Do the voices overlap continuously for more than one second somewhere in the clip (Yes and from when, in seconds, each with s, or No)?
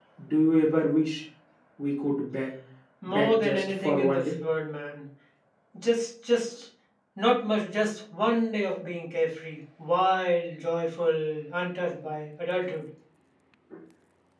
Yes, from 3.1 s